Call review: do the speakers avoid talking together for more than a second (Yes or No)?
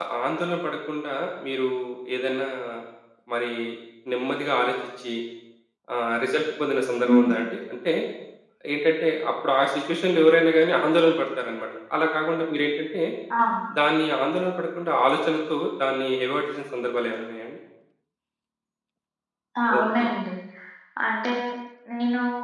Yes